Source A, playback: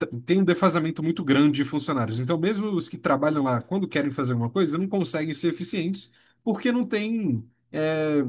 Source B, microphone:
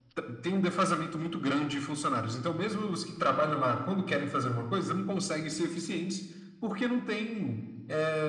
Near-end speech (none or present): none